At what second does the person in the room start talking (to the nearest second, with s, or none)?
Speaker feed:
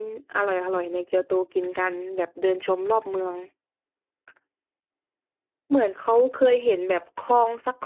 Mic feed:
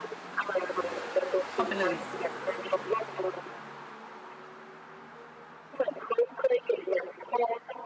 2 s